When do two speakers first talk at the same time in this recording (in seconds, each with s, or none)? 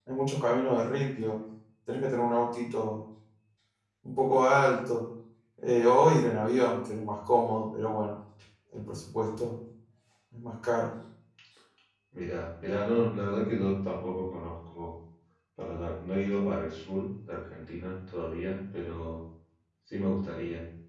none